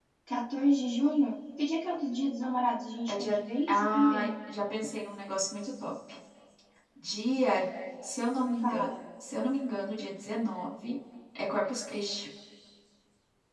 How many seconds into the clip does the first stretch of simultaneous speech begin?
3.1 s

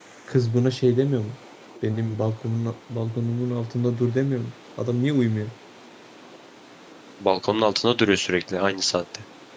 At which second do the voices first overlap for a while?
none

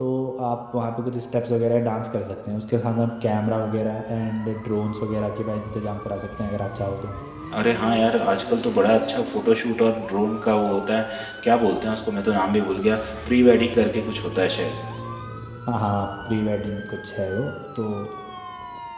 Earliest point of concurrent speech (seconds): none

